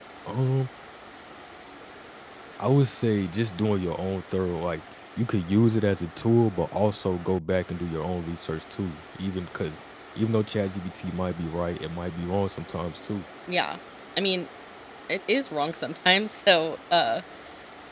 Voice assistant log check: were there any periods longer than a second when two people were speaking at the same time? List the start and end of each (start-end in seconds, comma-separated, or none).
none